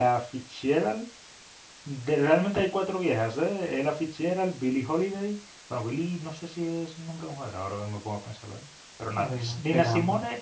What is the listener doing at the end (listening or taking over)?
listening